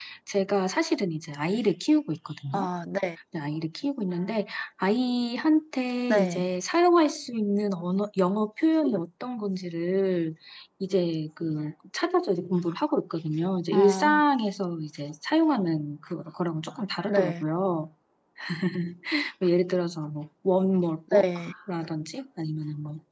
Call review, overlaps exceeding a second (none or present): none